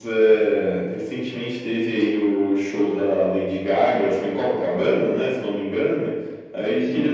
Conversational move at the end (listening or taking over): listening